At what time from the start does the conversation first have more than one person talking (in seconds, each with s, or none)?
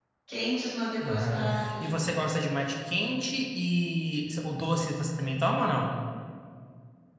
1.0 s